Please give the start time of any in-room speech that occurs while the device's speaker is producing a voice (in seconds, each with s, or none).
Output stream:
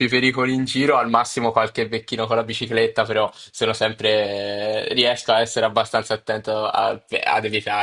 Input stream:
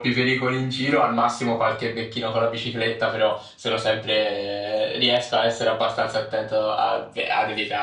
none